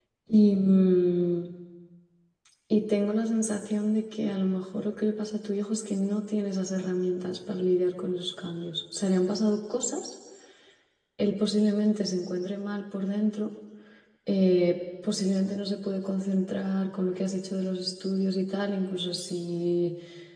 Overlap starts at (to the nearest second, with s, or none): none